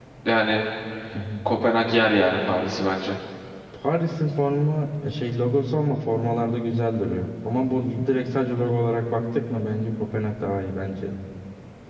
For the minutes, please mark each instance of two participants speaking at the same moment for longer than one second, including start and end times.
none

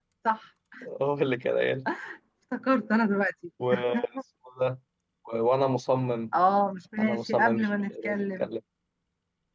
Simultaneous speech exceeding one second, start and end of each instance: 7.0-8.5

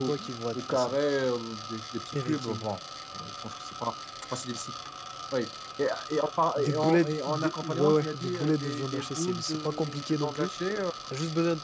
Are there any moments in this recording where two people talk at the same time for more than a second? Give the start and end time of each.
6.6-10.5

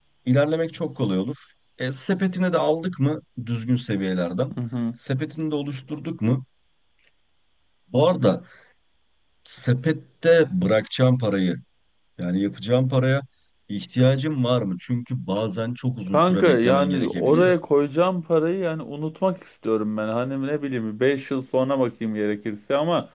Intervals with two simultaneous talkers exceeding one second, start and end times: 16.1-17.5

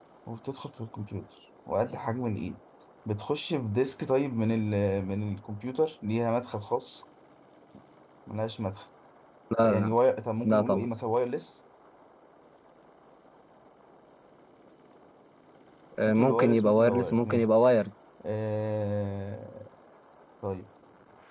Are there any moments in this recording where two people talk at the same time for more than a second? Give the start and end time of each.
16.1-17.5

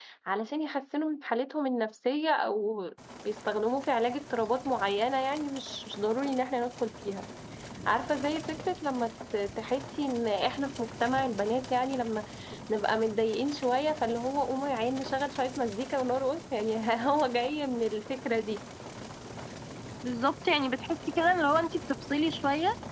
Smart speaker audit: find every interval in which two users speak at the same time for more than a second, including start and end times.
none

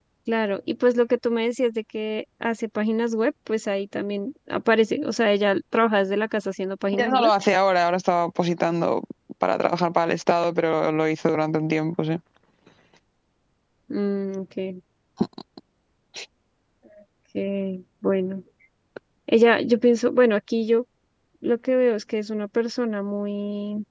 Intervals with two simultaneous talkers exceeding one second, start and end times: none

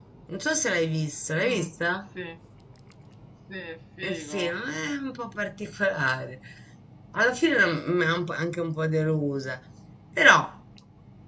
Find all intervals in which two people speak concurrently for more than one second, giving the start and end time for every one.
none

